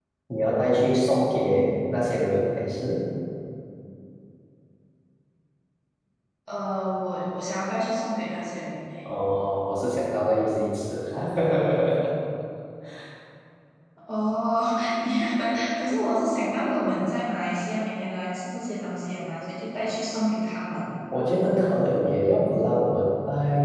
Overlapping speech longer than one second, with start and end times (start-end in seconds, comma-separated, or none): none